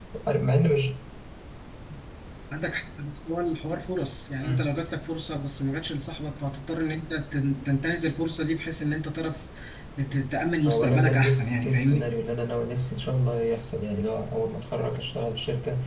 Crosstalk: present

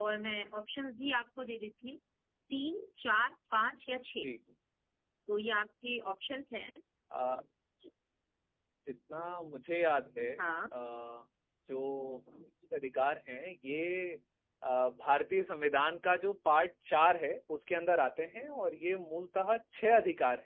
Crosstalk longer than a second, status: none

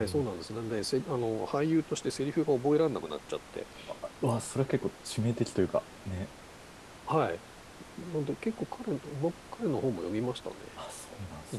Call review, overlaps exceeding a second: none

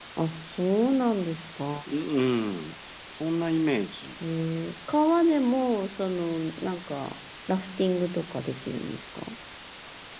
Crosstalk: none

